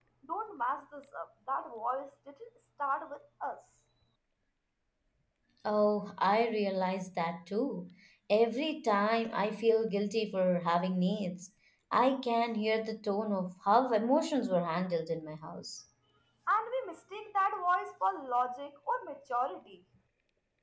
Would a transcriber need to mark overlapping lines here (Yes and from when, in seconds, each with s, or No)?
No